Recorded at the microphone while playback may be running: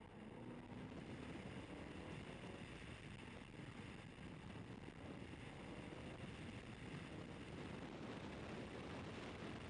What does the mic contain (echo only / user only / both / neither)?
neither